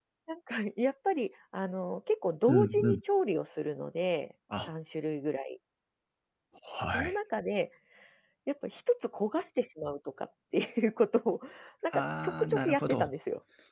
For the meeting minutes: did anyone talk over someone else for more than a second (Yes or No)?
Yes